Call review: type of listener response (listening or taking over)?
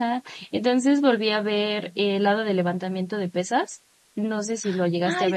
taking over